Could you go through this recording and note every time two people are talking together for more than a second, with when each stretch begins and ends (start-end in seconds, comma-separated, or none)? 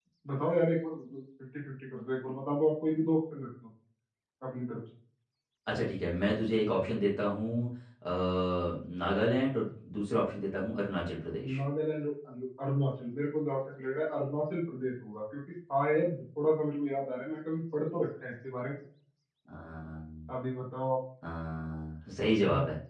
none